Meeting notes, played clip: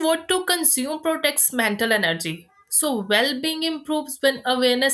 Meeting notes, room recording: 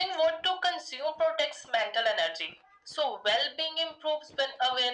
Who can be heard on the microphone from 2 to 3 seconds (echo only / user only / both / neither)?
echo only